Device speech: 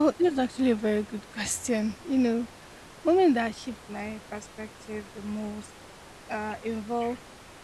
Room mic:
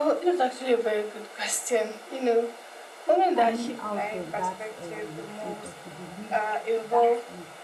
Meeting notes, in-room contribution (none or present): present